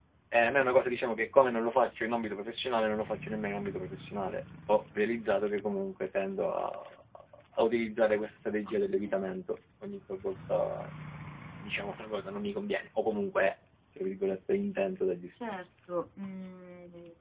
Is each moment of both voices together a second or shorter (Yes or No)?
Yes